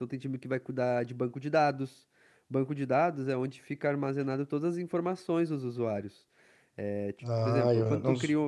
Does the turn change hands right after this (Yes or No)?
Yes